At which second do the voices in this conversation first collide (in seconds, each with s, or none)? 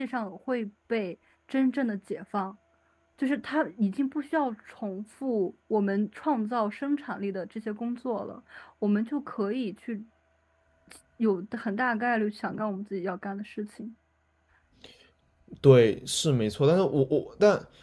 none